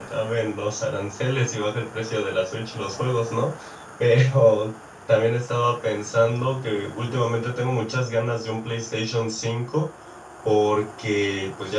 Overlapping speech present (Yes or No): No